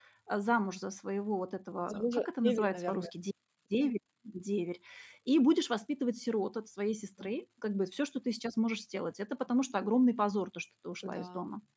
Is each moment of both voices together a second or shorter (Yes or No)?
No